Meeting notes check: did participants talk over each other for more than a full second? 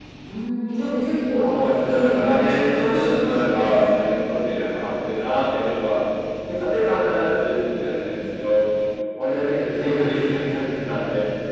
Yes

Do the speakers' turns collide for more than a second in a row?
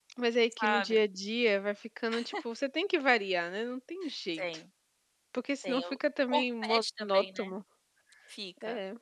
Yes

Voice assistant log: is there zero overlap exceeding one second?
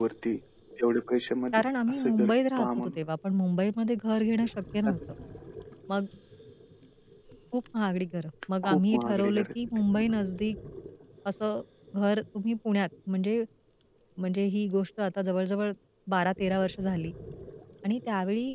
No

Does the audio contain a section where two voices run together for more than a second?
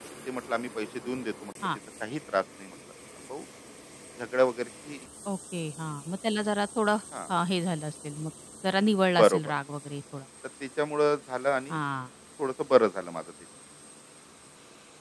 No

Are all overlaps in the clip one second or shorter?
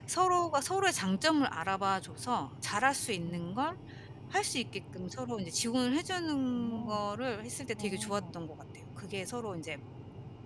Yes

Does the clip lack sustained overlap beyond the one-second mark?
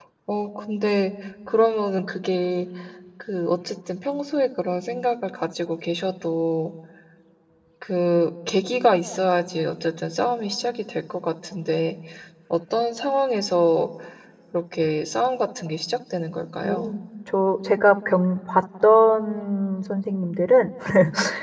Yes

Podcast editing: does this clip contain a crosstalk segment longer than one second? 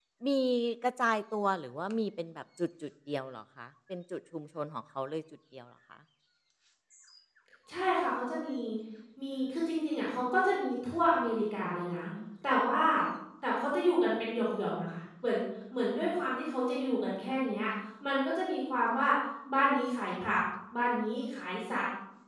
No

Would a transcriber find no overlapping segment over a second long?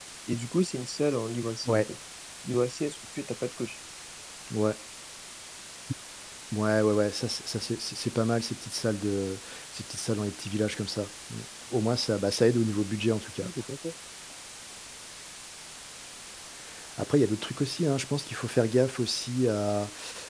Yes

